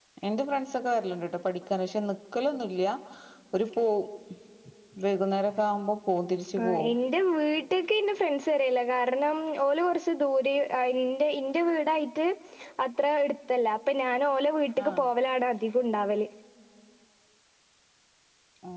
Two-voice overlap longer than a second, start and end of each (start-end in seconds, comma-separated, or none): none